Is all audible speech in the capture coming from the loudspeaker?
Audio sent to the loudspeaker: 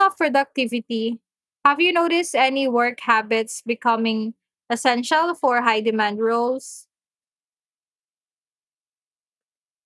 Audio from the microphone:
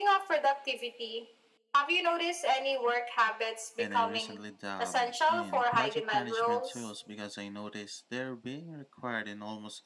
No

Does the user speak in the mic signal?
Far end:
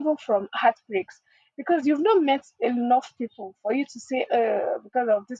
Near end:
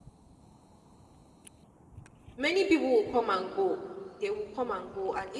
Yes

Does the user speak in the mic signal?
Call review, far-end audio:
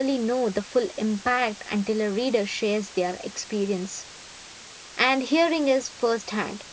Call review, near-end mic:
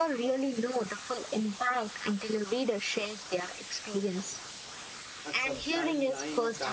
Yes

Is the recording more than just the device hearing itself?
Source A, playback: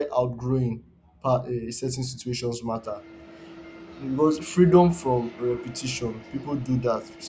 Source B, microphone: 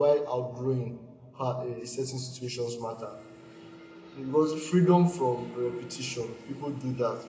No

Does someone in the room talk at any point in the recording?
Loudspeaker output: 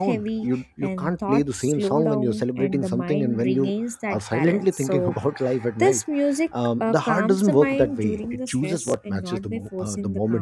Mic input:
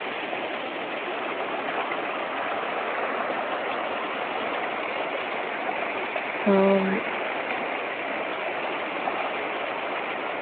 Yes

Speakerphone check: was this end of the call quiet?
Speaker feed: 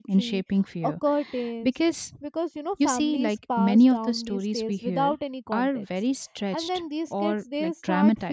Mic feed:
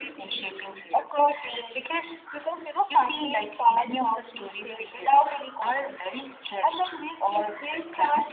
Yes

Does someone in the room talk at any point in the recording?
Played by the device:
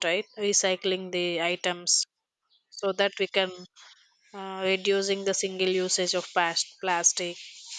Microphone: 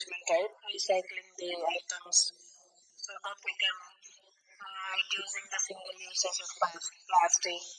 No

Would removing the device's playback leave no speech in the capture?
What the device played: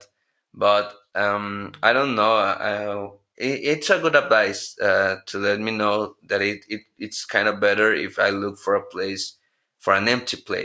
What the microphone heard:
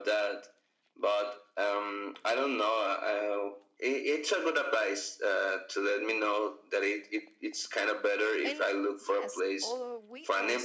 No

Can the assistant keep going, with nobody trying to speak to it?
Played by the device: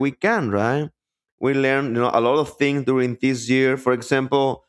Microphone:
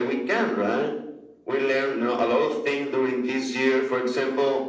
Yes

